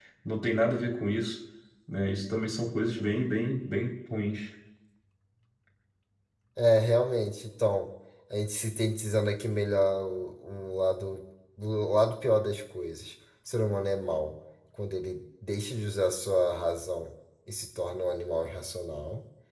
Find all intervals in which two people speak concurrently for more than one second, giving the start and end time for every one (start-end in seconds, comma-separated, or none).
none